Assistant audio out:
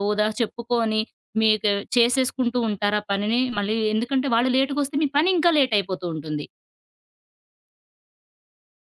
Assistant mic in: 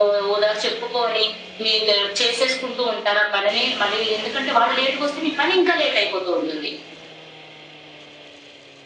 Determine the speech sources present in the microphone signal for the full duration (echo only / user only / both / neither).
echo only